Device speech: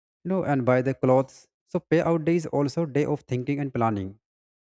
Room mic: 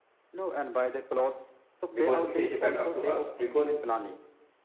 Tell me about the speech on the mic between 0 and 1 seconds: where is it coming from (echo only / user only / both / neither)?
echo only